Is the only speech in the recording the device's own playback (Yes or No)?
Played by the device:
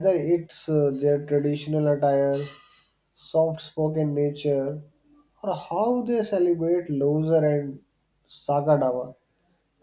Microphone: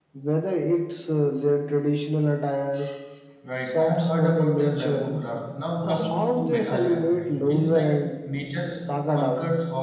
No